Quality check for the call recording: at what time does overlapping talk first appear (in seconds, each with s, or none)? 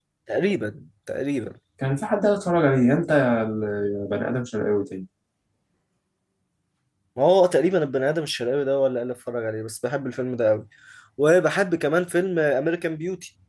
none